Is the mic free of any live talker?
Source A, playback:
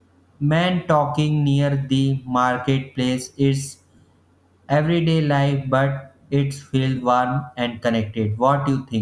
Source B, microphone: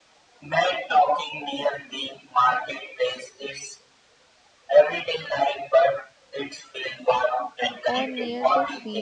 No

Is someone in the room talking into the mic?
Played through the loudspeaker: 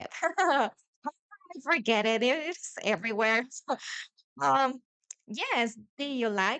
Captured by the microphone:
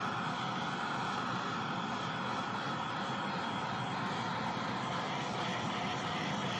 No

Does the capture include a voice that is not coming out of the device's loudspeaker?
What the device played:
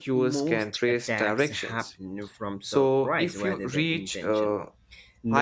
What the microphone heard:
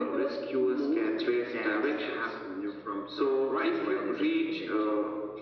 No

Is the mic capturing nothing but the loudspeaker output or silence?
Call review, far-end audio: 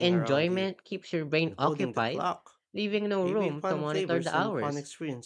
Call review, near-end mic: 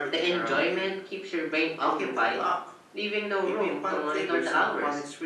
Yes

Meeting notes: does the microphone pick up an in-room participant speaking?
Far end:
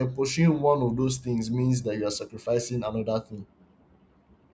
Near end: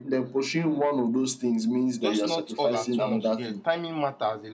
Yes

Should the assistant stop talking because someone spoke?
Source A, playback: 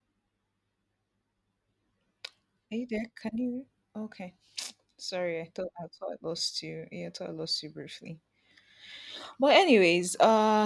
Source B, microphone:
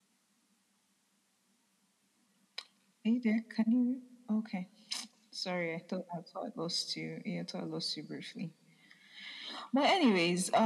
No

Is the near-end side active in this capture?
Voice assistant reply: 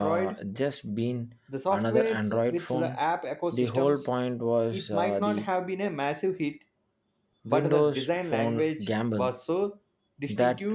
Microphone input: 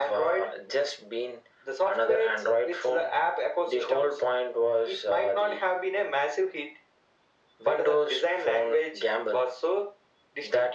No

